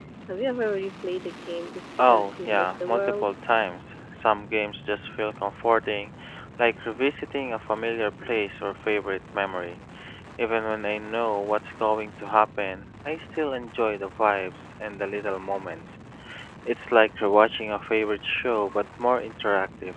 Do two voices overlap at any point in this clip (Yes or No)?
Yes